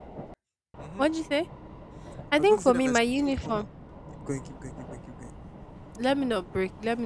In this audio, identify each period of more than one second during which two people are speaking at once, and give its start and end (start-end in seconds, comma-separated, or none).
2.4-3.6